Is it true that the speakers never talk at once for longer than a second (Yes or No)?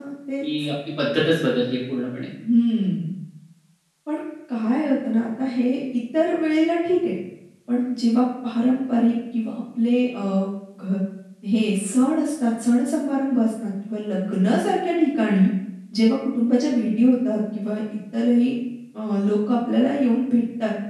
Yes